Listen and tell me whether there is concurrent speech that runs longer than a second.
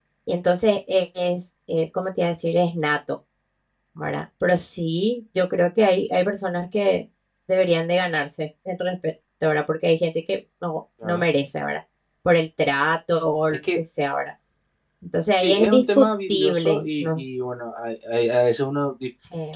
Yes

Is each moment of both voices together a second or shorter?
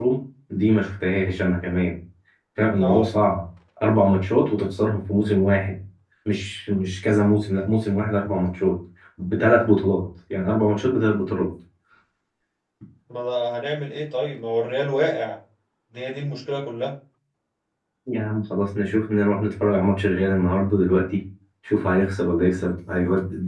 Yes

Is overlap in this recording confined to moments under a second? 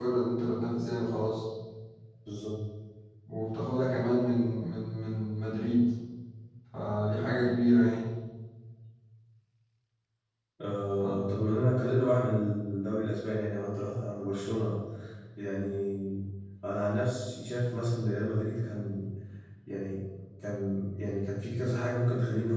Yes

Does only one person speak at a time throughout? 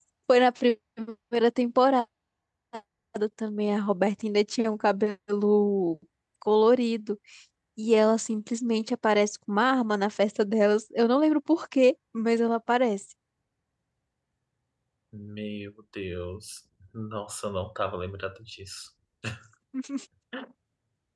Yes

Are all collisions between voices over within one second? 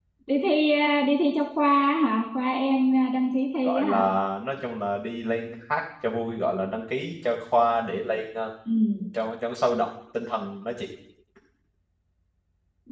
Yes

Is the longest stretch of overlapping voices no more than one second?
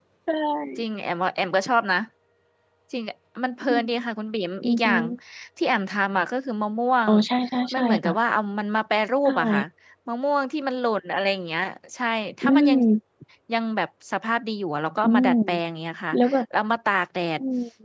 Yes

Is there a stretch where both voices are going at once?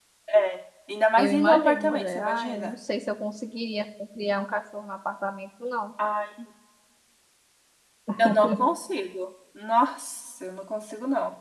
Yes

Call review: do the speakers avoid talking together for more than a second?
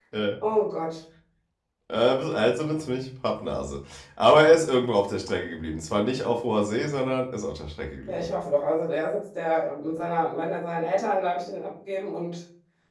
Yes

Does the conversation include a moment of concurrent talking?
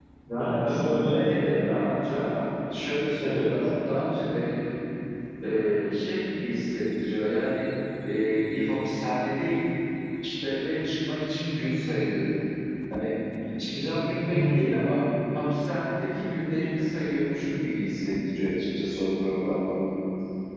Yes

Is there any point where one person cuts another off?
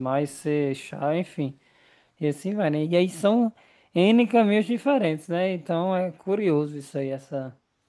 No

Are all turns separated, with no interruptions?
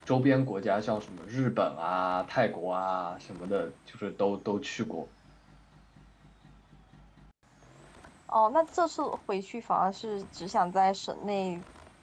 Yes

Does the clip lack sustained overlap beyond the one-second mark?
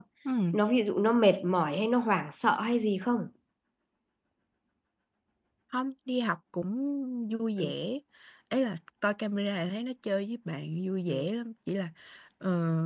Yes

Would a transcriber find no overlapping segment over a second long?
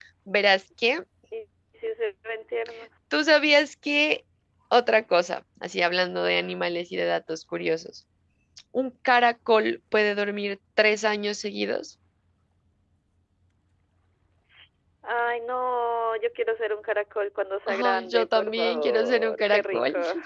No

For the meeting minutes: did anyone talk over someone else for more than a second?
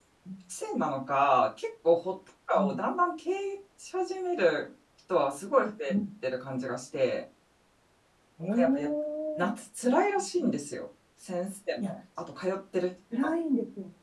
No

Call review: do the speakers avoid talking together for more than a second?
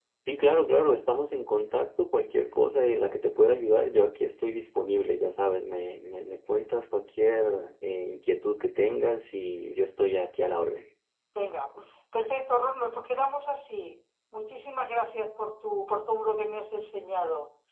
Yes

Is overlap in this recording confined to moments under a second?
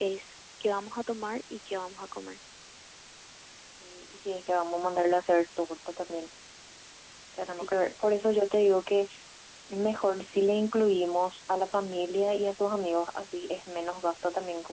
Yes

